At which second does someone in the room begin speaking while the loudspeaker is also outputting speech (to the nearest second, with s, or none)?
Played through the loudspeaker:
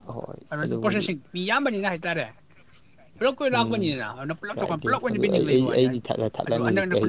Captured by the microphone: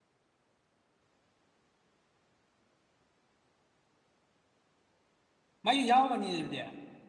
6 s